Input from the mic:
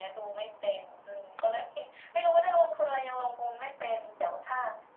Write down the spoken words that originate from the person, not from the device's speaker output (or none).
none